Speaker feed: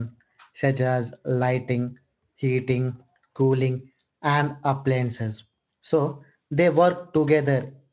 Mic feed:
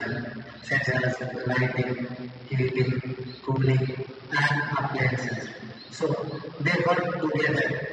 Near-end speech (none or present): none